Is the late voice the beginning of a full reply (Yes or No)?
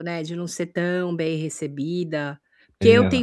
No